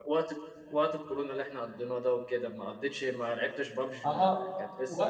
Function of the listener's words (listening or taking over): taking over